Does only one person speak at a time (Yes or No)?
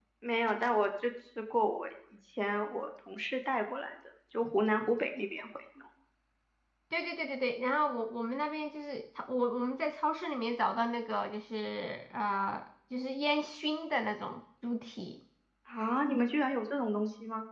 Yes